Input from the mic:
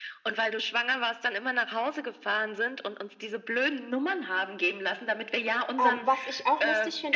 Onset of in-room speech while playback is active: 5.8 s

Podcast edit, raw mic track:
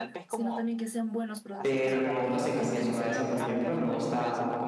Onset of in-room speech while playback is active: 1.6 s

